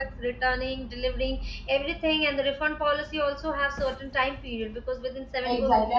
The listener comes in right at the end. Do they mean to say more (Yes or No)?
Yes